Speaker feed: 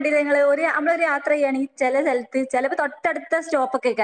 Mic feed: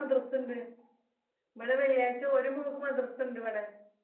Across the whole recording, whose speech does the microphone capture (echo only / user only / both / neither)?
user only